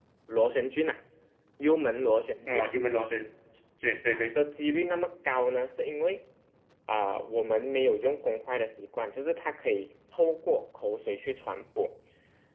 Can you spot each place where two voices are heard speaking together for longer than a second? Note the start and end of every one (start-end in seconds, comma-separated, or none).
none